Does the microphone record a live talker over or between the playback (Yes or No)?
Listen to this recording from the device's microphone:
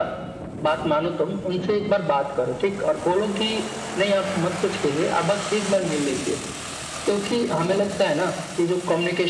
No